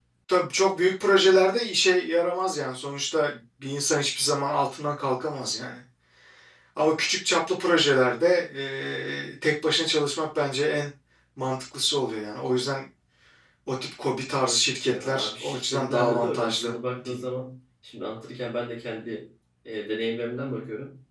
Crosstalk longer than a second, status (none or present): present